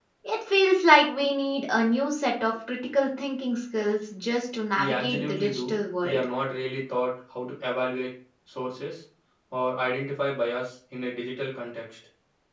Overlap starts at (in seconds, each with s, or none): 4.8 s